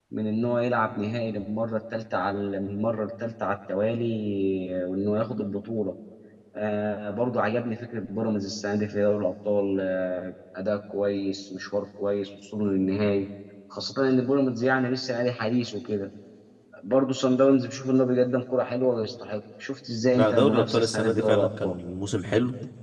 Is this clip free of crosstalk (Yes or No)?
No